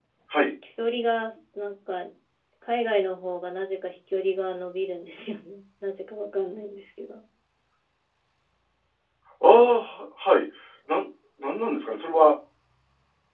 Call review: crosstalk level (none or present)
none